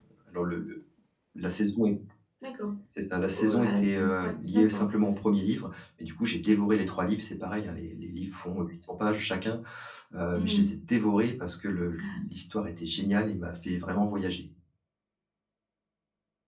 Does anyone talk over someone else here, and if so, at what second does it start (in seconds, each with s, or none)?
3.3 s